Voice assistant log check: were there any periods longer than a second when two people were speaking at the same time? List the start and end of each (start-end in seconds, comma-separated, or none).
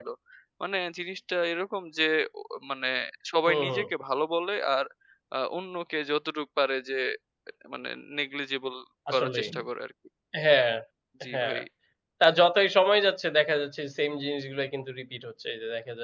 none